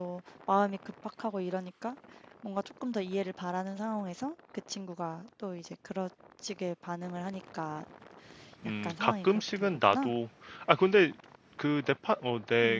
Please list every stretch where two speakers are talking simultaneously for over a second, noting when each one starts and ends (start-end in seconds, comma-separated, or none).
8.8-10.1